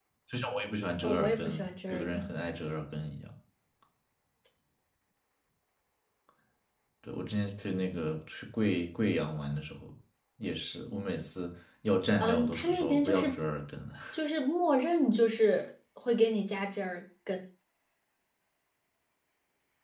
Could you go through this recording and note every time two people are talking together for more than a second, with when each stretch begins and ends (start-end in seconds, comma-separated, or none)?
1.0-2.3, 12.2-13.4